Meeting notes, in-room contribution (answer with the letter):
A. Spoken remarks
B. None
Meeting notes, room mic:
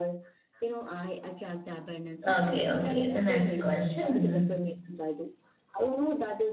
A